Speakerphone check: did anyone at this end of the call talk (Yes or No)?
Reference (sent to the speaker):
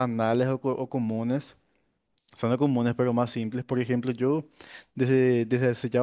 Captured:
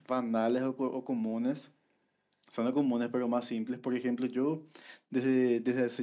No